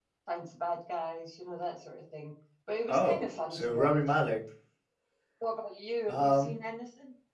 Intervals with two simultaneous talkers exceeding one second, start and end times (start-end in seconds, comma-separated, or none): 2.9-4.2